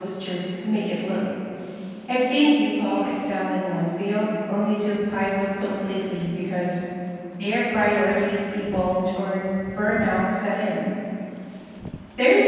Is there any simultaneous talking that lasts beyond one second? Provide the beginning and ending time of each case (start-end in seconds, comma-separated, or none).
none